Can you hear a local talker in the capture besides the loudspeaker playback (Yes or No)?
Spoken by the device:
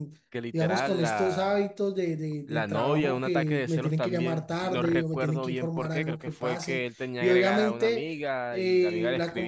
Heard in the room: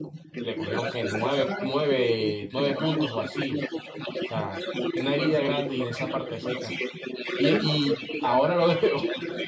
Yes